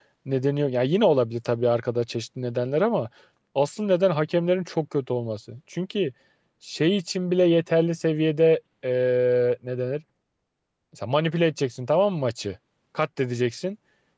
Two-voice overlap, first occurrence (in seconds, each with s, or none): none